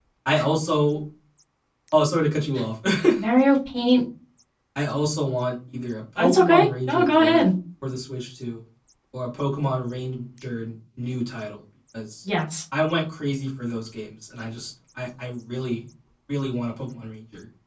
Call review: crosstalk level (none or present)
present